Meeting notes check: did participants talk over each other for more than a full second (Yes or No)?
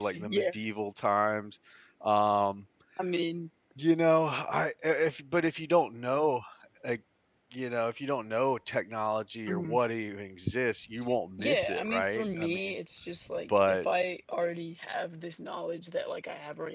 Yes